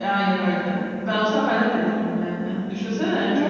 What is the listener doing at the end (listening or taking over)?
taking over